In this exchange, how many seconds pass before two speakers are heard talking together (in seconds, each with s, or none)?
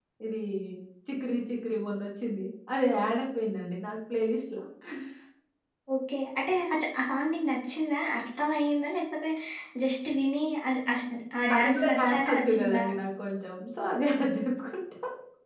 11.6 s